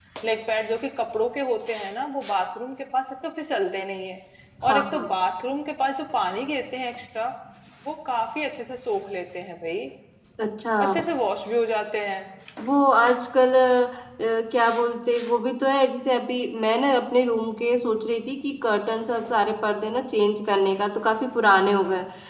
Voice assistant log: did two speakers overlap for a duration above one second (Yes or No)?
No